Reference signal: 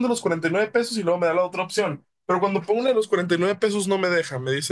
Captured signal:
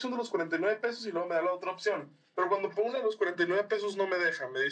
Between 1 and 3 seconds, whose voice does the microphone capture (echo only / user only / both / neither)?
echo only